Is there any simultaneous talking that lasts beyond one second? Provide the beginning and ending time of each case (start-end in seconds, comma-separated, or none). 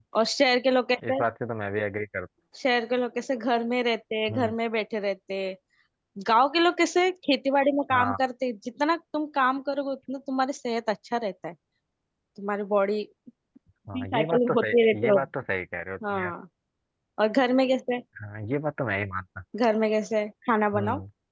14.0-15.2